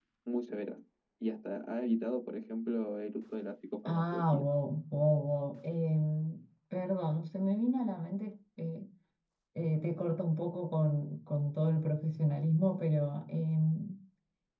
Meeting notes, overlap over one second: none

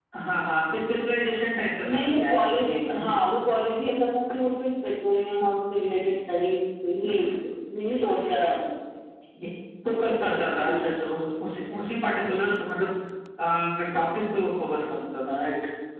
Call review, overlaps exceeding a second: present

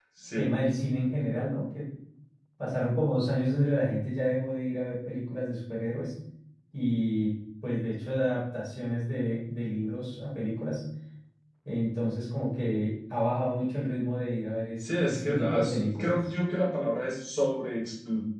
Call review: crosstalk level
present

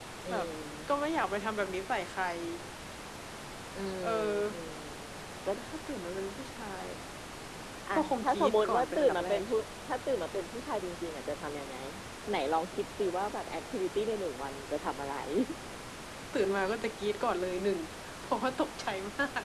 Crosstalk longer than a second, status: present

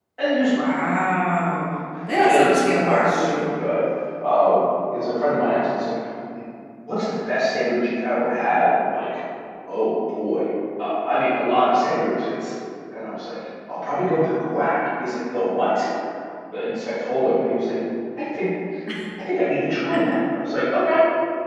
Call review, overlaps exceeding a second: present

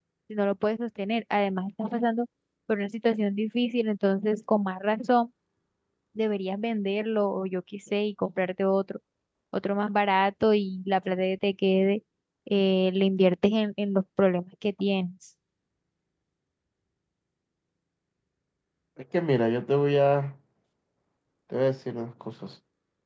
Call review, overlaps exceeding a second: none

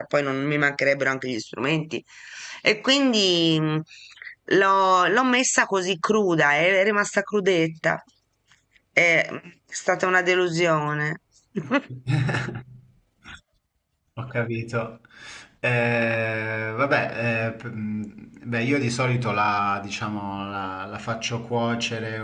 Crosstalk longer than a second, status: none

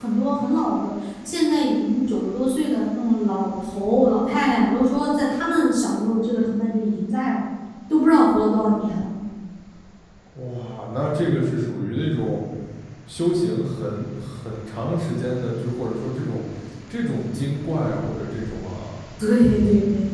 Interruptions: none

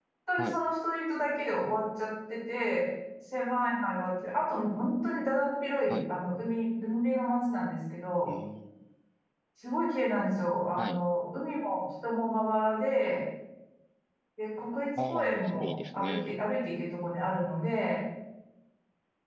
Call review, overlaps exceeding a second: present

